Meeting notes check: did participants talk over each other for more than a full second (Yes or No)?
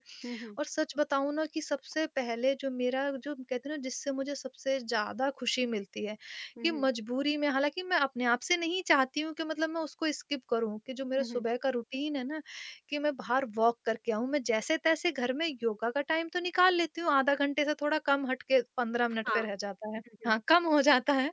No